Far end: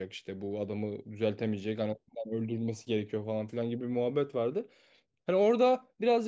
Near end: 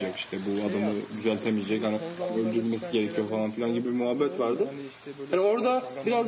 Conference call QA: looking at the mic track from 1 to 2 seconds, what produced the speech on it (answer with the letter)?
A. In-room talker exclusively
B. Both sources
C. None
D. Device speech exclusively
B